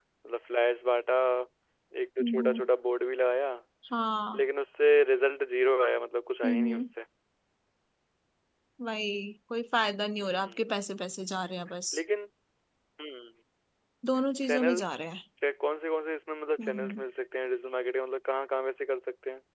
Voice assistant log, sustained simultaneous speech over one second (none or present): none